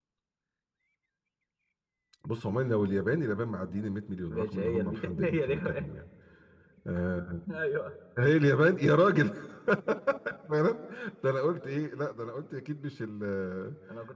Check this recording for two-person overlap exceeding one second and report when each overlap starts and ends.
4.3-5.8

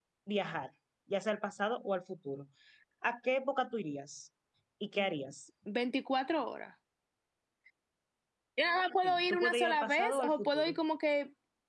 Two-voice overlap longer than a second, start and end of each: 9.0-10.8

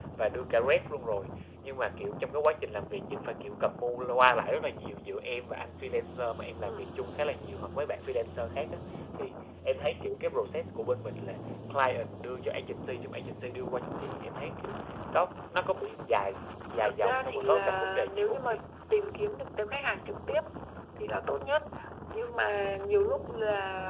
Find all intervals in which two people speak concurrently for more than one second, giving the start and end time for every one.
16.8-18.6

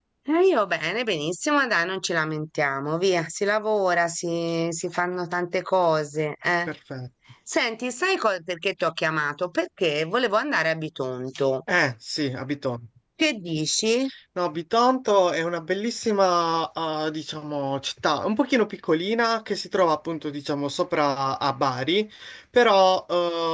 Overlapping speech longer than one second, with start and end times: none

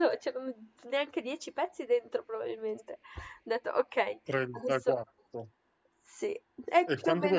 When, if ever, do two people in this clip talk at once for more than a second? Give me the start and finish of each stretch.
none

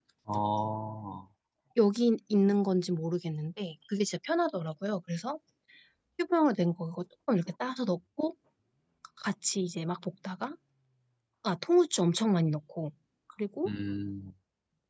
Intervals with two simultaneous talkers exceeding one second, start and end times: none

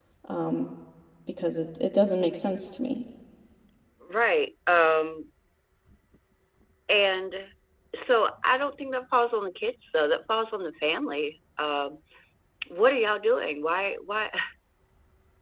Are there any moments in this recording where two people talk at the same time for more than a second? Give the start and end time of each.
none

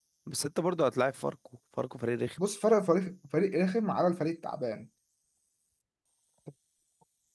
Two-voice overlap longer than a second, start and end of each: none

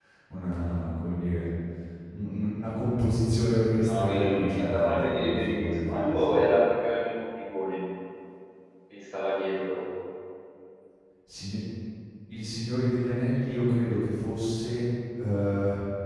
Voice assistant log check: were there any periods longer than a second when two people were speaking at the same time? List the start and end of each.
3.8-6.3

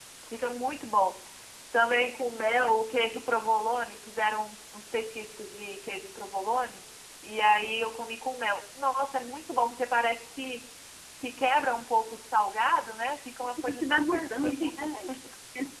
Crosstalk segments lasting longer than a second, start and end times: 13.4-14.9

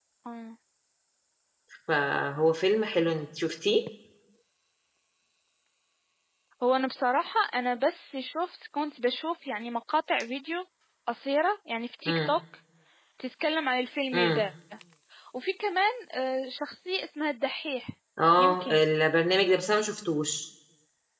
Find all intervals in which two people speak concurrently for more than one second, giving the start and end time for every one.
none

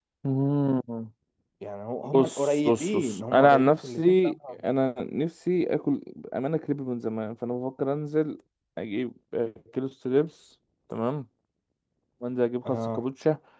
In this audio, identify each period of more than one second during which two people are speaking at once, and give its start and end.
2.0-4.6

